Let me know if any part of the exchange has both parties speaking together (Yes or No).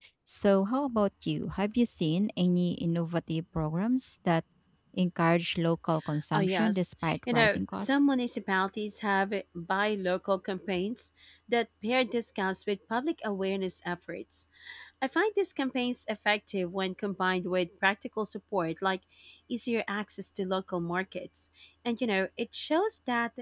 Yes